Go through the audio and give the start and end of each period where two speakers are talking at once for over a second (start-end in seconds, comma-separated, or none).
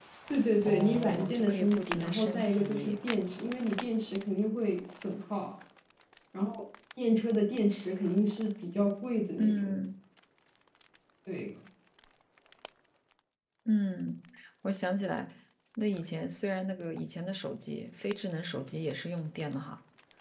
0.6-3.0